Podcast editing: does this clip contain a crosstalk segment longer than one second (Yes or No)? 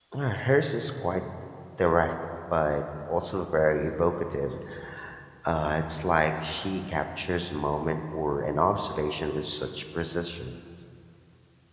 No